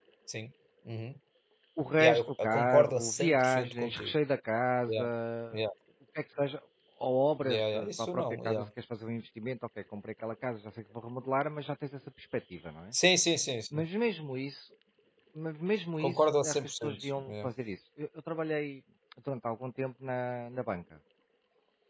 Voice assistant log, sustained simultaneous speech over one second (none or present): present